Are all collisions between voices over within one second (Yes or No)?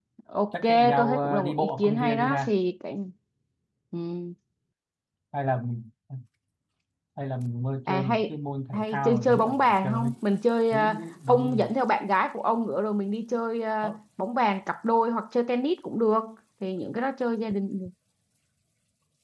No